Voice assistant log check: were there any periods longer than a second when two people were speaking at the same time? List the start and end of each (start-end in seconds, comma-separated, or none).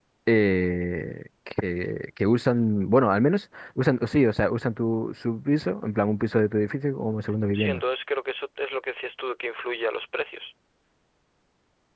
none